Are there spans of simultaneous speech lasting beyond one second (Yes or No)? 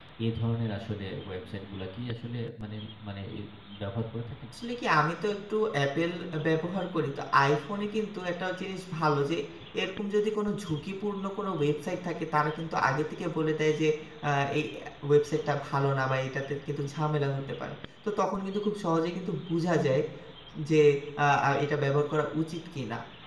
No